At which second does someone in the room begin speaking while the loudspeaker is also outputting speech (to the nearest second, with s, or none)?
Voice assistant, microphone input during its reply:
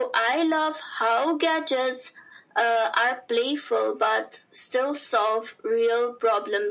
none